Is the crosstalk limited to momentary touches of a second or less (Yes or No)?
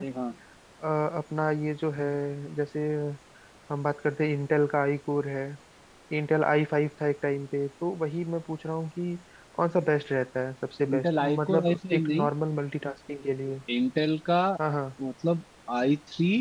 No